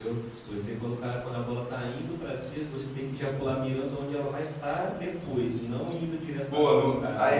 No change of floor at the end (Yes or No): No